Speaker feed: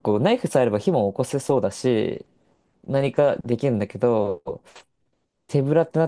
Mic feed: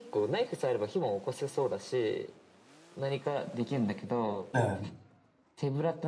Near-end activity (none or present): present